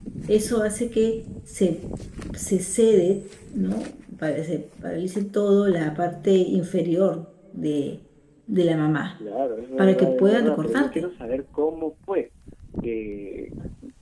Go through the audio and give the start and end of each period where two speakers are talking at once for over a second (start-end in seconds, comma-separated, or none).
9.8-11.0